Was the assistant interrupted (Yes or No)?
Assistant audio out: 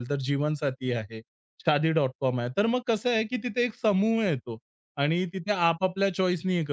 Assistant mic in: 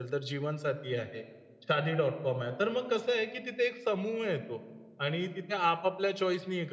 No